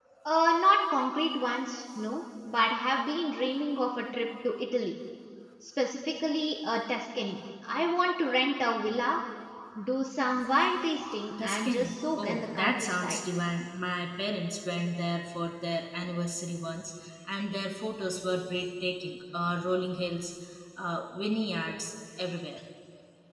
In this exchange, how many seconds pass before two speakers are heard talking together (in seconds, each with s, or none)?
11.4 s